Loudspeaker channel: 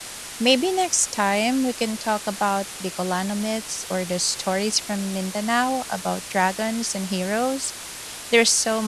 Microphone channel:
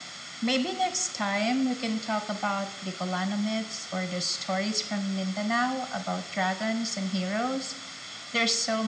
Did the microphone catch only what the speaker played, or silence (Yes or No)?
Yes